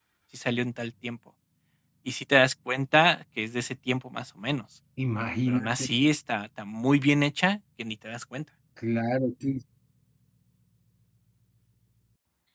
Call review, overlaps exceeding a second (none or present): none